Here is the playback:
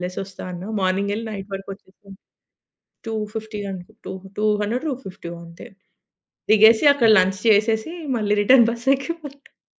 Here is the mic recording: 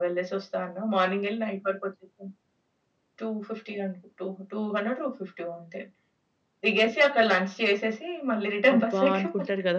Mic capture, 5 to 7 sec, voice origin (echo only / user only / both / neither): echo only